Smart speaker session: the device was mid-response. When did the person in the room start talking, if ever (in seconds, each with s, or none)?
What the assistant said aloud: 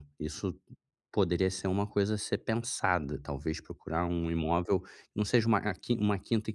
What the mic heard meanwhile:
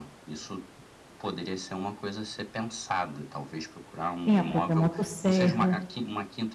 4.2 s